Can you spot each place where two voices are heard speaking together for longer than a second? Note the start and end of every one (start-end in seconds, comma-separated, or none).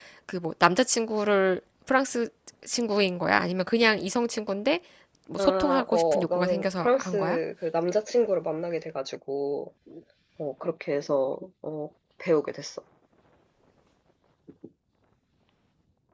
5.4-7.4